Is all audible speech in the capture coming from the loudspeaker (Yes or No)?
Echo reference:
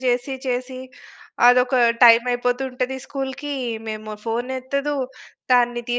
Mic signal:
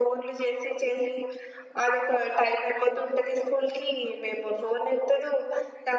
Yes